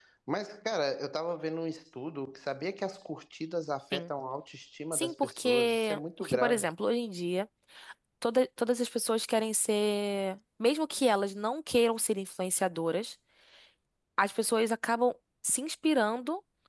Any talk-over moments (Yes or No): Yes